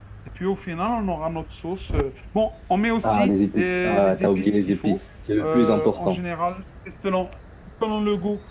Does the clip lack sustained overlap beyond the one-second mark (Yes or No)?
No